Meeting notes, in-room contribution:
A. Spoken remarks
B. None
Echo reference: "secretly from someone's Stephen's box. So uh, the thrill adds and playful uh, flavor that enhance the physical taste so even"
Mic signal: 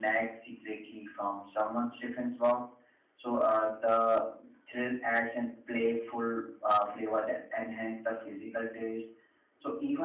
B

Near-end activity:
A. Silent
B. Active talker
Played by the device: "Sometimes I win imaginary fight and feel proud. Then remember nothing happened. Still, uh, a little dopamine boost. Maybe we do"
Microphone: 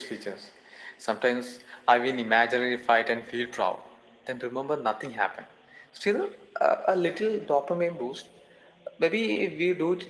A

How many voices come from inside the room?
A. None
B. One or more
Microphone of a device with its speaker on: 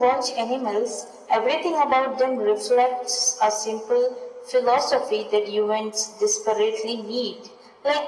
A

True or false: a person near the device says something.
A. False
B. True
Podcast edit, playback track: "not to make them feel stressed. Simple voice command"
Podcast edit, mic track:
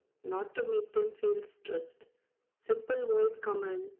A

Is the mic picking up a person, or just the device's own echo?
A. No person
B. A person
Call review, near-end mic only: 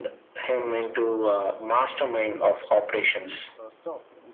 B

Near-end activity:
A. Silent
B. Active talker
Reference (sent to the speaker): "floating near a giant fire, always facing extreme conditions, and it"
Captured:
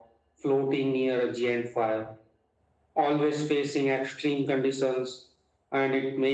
A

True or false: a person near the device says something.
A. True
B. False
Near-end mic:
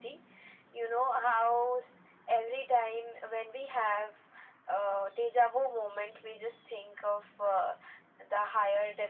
B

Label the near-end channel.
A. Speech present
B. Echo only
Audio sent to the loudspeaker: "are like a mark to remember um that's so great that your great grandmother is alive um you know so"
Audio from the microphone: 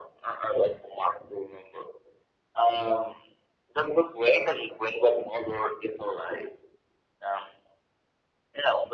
B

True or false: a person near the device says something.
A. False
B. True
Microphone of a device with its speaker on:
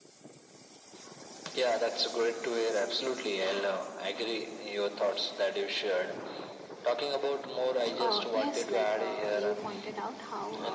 B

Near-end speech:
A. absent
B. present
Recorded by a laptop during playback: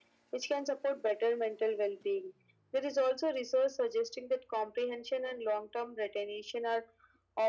A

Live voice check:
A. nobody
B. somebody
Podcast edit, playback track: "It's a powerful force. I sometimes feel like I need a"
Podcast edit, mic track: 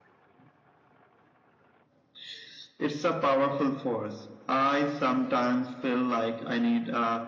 A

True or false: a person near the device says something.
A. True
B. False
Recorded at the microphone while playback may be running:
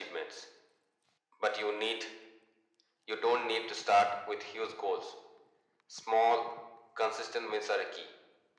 B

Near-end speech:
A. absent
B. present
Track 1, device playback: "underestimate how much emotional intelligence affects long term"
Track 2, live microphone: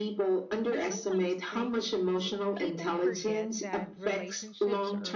B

